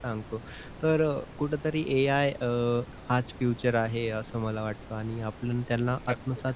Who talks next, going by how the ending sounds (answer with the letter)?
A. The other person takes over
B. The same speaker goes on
B